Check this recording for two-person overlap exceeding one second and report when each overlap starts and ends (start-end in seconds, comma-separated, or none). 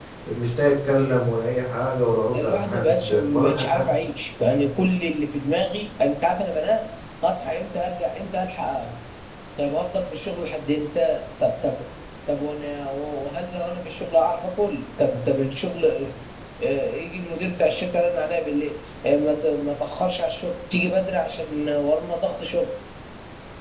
2.3-3.9